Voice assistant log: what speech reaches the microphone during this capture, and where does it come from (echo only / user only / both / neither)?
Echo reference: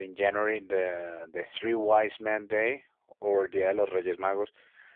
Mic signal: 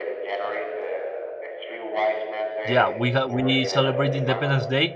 both